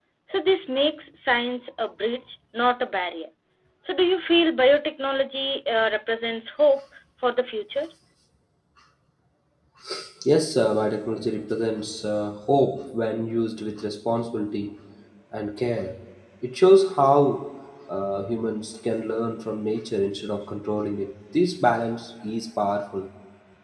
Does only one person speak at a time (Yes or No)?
Yes